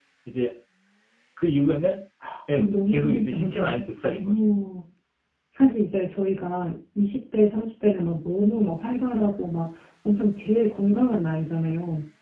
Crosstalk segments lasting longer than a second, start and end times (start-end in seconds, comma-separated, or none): 2.5-4.3